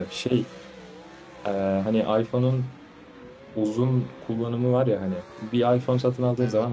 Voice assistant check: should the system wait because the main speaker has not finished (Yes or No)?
Yes